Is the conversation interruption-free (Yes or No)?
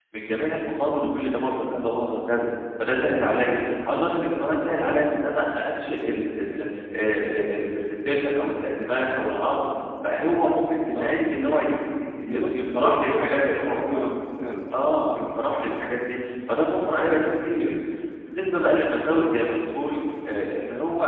No